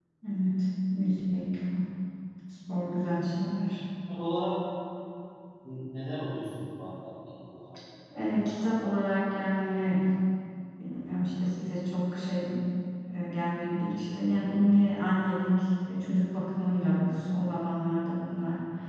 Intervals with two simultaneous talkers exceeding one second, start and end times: none

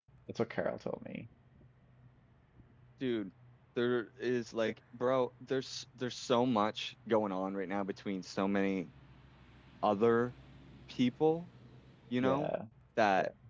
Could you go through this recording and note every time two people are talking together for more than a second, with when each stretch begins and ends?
none

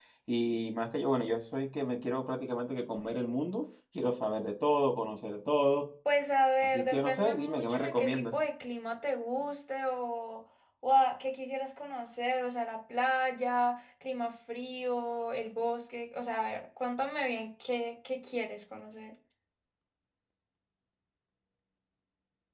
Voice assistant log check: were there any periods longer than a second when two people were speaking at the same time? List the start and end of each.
6.6-8.3

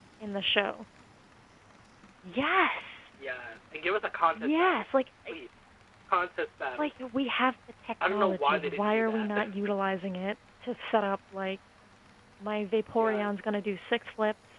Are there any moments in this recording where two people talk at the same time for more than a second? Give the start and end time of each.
8.1-9.3

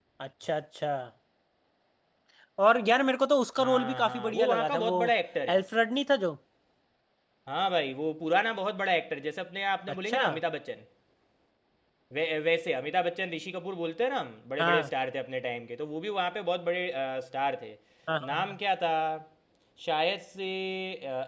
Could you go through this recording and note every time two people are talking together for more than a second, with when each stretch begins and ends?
3.6-5.0

